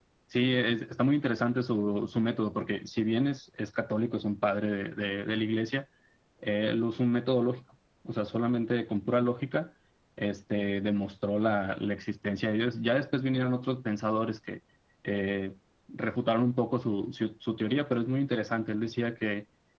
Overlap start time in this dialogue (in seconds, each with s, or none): none